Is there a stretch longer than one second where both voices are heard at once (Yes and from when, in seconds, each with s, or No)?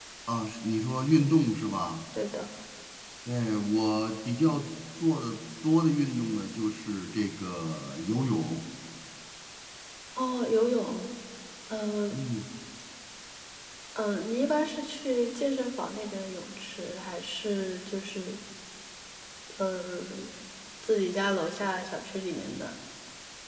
No